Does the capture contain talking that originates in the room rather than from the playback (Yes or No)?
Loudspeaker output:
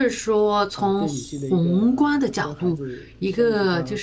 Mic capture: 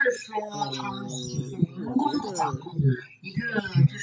Yes